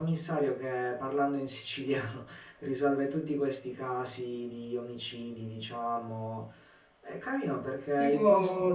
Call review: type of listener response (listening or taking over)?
taking over